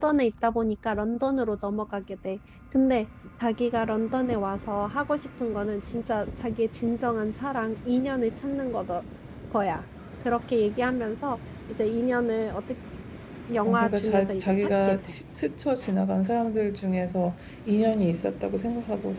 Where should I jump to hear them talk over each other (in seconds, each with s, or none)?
13.7 s